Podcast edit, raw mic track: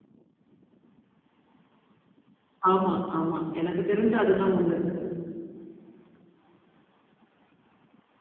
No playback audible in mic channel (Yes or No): Yes